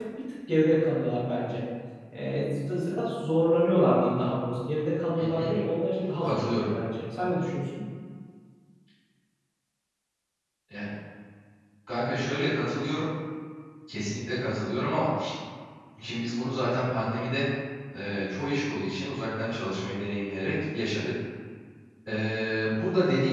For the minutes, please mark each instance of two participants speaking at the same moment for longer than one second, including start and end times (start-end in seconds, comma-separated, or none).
none